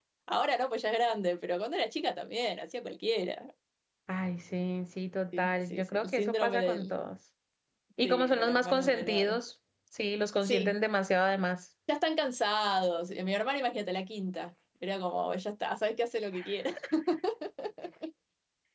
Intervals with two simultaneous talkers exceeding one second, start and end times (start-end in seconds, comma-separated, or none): 5.4-6.9, 8.0-9.4